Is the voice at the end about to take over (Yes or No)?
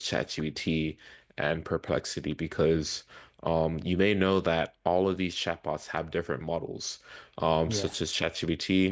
No